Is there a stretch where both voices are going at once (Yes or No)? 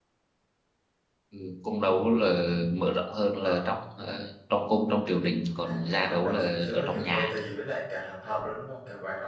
Yes